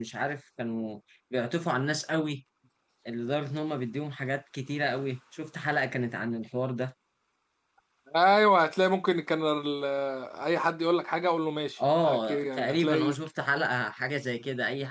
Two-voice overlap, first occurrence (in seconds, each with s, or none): 11.8 s